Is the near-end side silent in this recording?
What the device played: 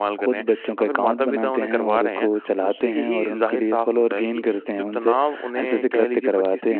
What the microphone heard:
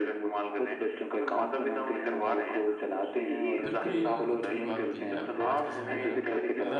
No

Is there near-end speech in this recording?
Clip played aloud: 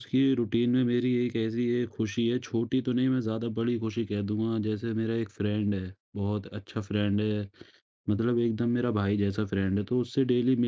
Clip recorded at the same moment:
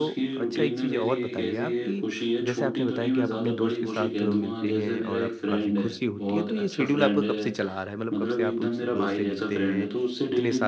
Yes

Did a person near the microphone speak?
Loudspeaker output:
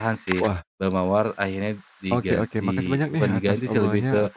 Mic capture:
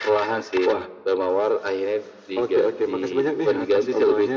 No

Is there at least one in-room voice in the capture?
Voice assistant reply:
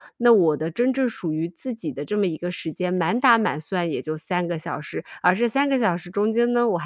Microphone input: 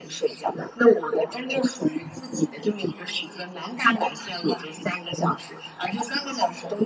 No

